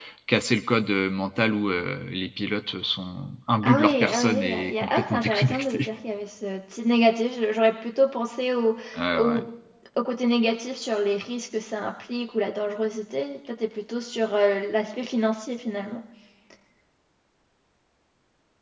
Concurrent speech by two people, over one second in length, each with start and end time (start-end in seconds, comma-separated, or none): 3.6-5.9